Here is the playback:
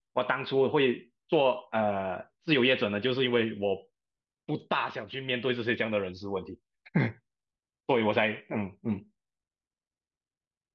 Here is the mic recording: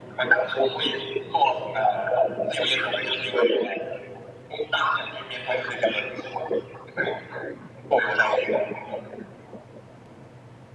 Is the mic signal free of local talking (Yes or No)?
Yes